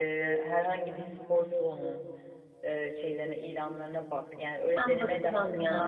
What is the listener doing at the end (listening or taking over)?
taking over